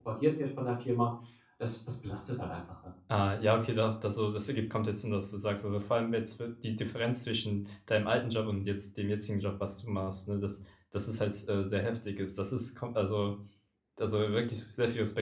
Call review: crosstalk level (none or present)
none